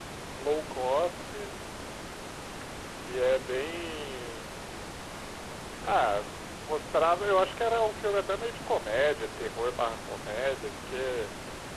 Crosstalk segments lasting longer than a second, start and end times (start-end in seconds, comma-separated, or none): none